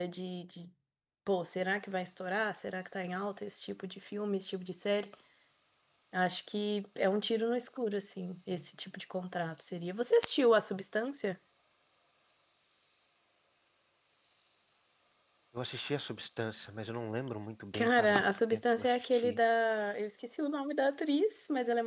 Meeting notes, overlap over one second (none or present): present